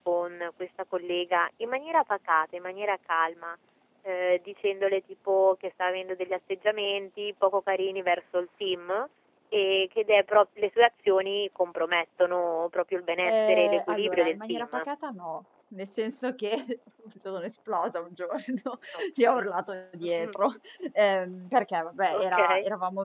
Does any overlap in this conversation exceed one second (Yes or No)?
Yes